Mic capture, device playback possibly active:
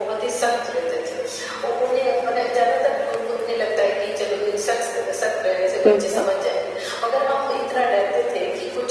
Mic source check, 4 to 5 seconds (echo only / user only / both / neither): echo only